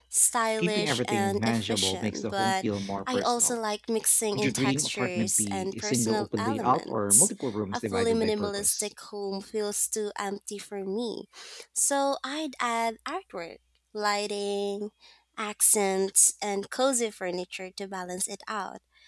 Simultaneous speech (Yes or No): Yes